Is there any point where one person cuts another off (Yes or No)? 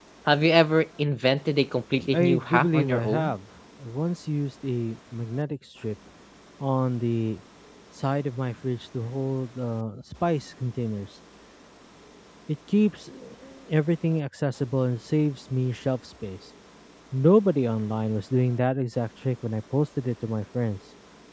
Yes